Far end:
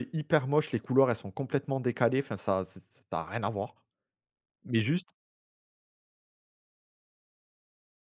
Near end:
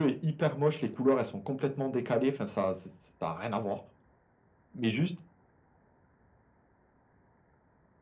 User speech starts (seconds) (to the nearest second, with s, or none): none